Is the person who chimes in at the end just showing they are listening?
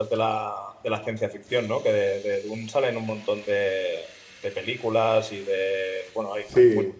Yes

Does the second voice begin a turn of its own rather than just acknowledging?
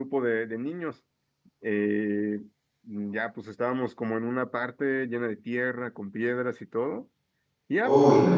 No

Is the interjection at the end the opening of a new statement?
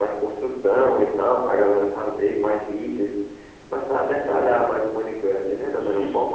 Yes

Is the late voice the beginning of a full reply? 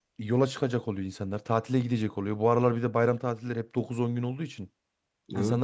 No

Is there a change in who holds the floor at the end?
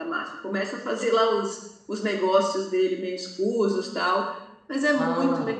Yes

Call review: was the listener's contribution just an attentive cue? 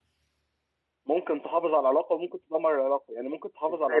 Yes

